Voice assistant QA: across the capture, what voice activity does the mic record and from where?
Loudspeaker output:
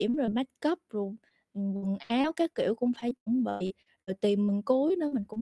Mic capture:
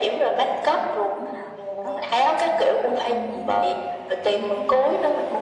both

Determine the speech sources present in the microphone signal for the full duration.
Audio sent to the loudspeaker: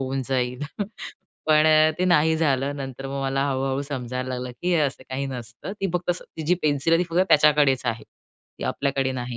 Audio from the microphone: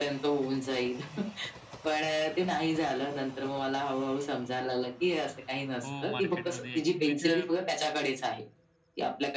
both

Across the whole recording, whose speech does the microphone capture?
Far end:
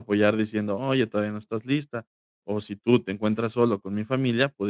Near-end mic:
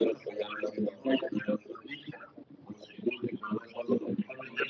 echo only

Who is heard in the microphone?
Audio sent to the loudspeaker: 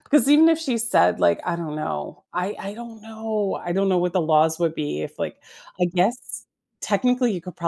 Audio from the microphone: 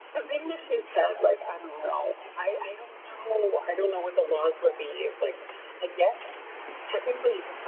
echo only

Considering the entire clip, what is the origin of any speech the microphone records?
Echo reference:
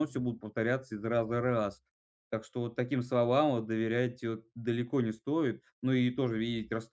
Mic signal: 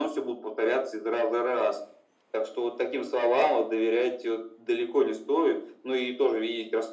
echo only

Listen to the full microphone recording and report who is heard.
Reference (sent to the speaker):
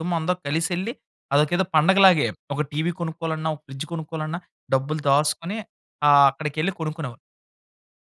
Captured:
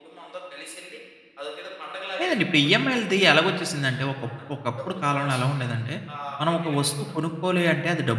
both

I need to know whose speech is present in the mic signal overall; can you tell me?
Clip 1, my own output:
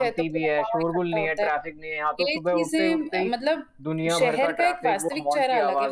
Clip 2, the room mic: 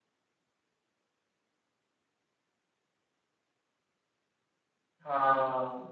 user only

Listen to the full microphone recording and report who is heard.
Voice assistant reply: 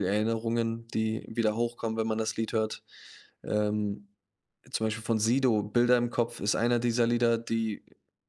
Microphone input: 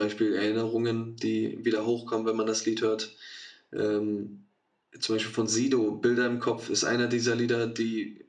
echo only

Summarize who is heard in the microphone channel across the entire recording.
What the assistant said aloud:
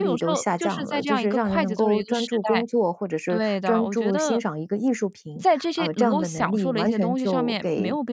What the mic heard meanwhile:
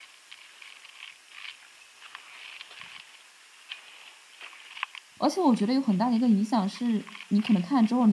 user only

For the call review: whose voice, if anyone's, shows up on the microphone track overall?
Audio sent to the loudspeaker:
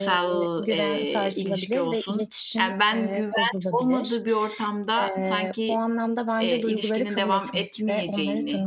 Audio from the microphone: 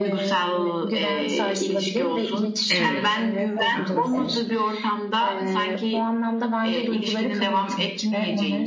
both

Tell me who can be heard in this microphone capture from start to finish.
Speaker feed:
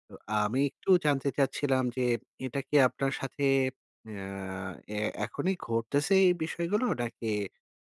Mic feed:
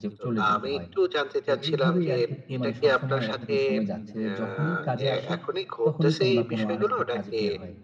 both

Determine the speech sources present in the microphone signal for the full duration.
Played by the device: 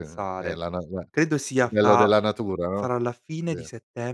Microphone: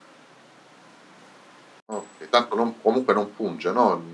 user only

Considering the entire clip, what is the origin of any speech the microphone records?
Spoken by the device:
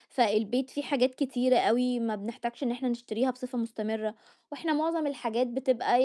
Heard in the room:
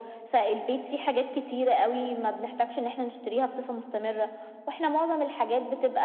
echo only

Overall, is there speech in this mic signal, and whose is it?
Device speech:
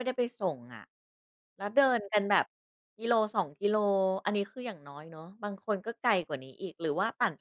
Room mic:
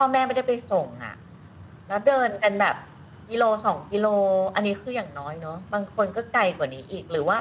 echo only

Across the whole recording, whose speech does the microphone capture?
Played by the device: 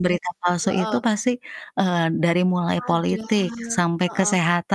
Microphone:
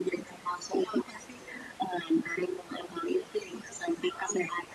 echo only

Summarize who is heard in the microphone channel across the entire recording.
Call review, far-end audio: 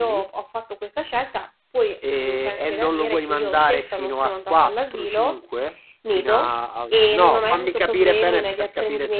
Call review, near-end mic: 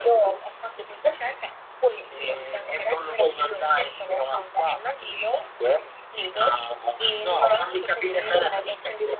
echo only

